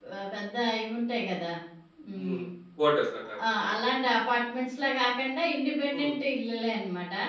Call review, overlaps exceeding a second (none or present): none